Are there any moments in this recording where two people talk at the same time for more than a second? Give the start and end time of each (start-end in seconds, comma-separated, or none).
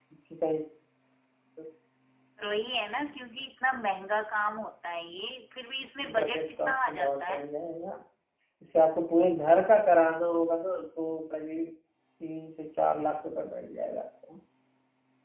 6.2-7.4